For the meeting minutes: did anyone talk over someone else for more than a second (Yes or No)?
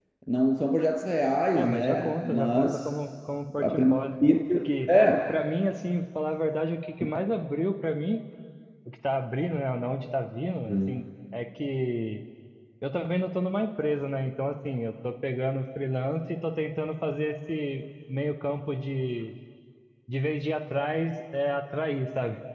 Yes